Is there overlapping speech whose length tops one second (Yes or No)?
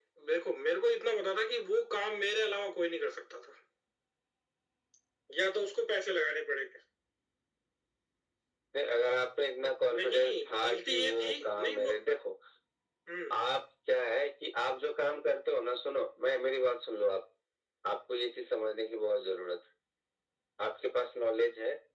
Yes